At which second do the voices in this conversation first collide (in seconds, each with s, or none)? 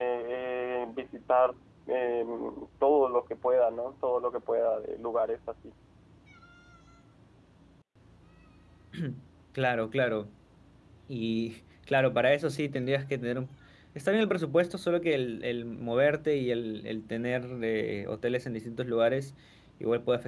none